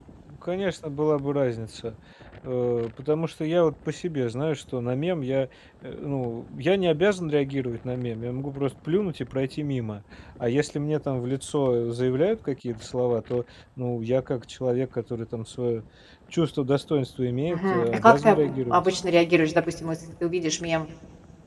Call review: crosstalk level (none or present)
present